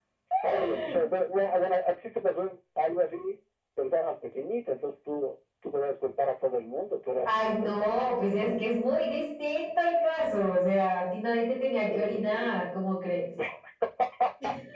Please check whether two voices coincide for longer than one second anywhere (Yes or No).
Yes